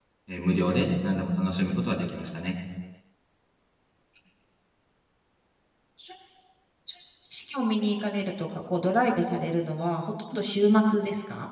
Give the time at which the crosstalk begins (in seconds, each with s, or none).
none